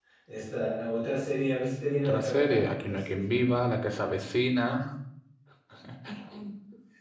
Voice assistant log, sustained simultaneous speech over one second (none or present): present